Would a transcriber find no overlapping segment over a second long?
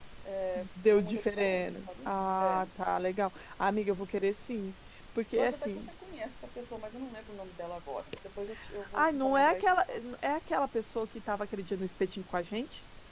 No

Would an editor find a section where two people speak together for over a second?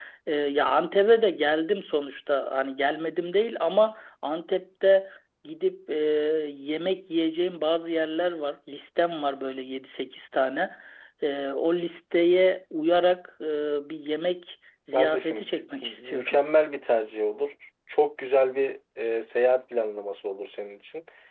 Yes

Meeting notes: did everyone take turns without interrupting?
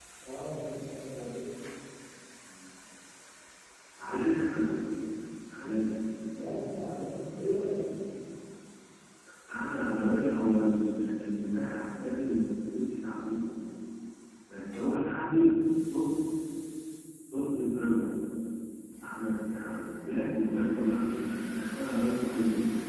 Yes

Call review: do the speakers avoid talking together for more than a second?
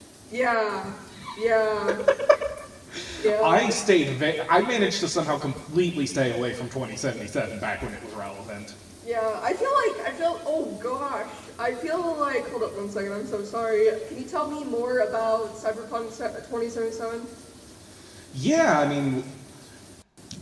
Yes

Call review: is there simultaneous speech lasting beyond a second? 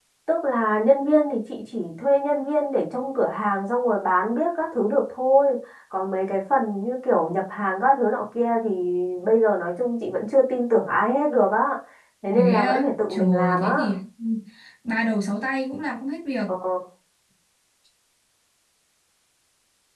Yes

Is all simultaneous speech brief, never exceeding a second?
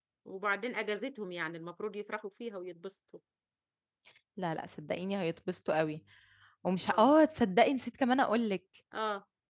Yes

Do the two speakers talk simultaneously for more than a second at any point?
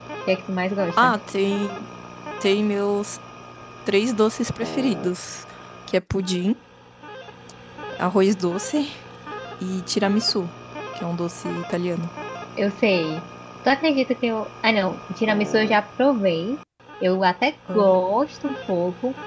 No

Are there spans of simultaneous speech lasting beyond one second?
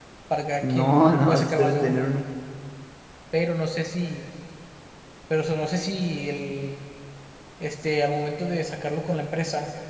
Yes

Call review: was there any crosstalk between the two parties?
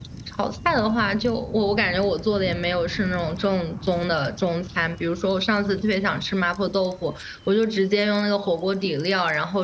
No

